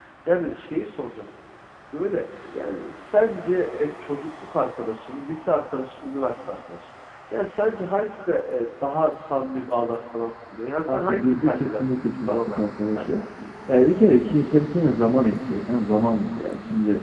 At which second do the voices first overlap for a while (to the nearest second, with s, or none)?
11 s